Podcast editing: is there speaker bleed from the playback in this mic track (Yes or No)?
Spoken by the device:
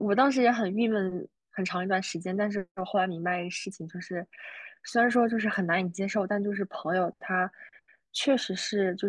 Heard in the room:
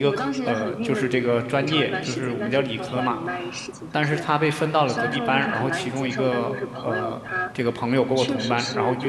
Yes